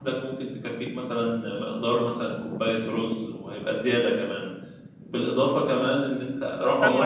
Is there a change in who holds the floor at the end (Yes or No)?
Yes